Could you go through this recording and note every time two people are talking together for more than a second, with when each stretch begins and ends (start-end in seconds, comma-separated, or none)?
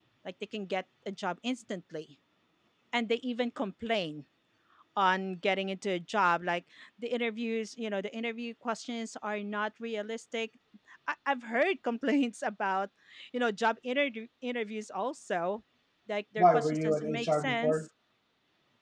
16.4-17.9